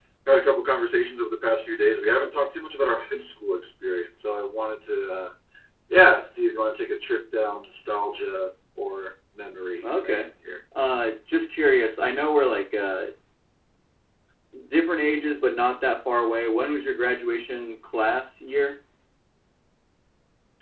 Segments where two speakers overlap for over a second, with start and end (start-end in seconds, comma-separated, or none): none